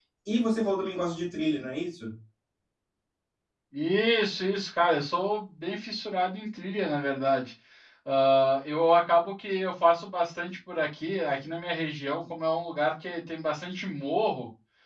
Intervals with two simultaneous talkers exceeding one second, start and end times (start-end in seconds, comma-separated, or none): none